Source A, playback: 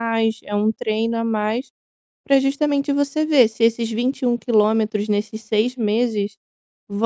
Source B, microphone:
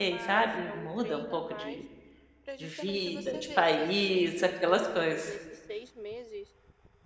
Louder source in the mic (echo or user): user